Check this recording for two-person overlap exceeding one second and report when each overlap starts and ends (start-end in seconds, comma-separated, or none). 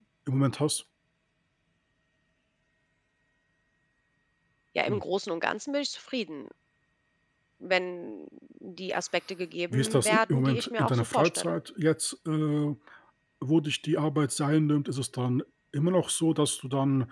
9.7-11.6